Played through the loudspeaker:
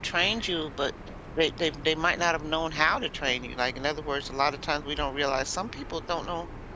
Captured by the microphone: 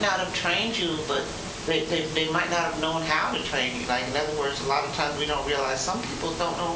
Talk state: echo only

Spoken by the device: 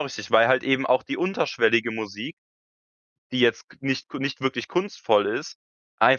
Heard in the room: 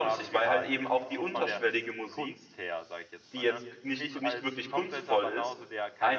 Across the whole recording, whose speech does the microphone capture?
both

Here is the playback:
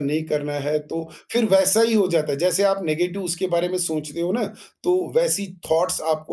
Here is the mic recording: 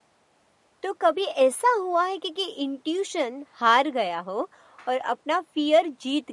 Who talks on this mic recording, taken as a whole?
user only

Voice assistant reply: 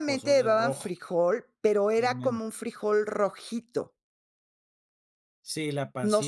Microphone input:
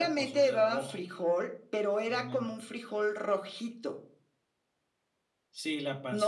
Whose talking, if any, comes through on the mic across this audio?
echo only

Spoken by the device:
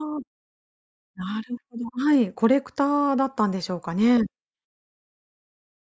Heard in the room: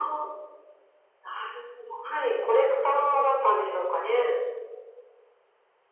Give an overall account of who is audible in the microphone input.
echo only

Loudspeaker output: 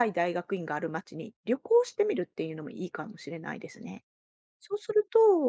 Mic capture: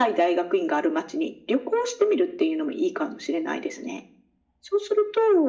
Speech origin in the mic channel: echo only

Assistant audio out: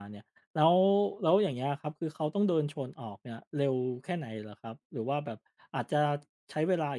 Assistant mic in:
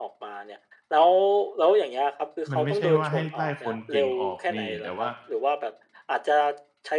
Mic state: both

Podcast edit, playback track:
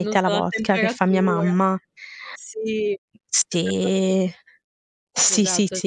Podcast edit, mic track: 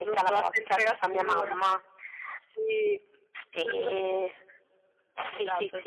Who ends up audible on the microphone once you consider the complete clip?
echo only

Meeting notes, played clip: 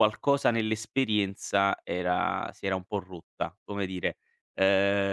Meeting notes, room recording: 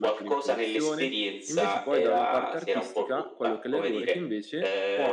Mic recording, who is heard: both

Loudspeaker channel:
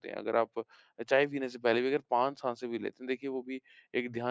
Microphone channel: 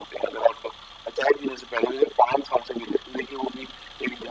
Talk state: echo only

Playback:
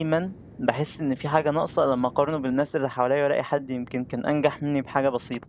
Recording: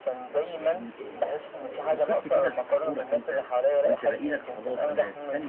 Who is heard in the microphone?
both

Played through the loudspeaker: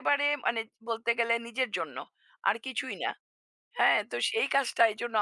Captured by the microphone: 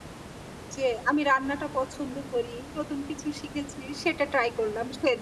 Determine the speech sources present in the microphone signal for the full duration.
user only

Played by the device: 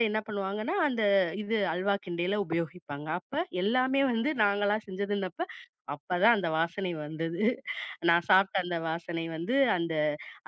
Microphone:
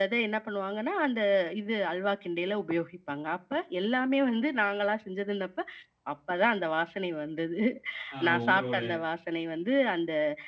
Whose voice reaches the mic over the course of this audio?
both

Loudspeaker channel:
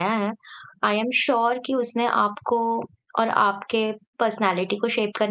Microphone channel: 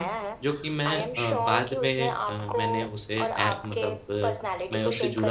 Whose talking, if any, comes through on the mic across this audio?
both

